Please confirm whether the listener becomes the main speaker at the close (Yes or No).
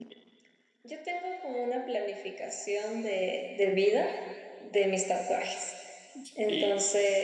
No